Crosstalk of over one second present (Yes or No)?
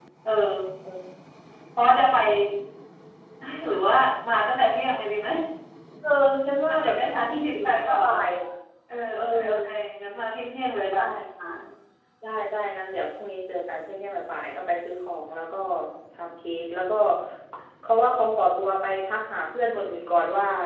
Yes